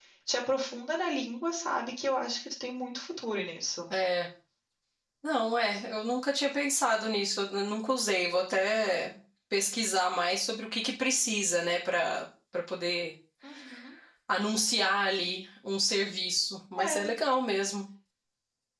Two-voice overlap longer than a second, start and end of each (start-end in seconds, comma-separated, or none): none